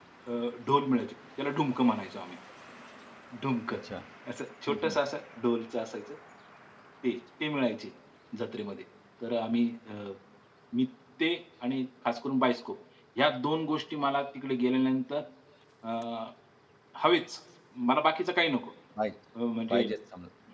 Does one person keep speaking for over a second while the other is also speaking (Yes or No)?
No